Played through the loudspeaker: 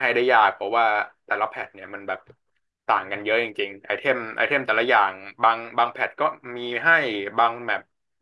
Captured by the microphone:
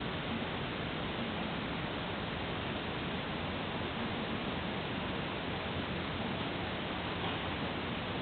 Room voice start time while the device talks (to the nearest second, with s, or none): none